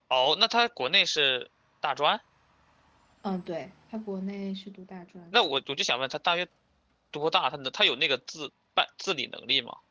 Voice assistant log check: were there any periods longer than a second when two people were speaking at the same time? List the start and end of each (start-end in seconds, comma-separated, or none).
none